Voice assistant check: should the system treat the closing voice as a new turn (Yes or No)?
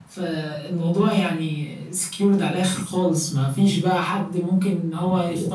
Yes